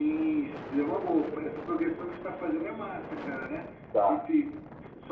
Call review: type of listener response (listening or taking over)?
listening